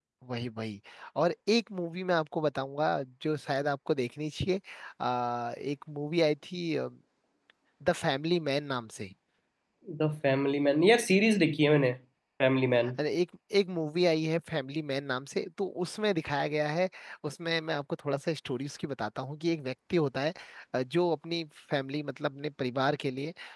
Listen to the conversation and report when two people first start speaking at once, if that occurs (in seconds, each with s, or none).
none